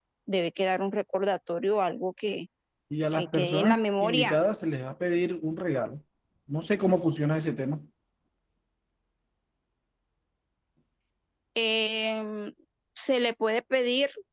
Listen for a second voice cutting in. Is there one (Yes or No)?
Yes